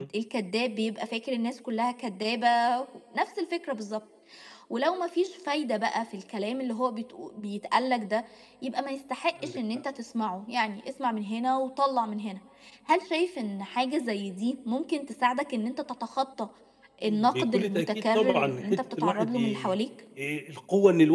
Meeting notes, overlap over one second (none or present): present